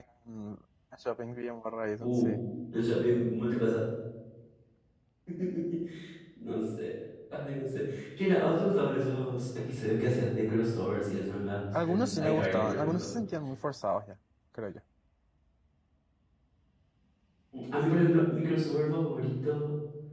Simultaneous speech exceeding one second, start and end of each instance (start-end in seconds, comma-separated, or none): 11.8-13.1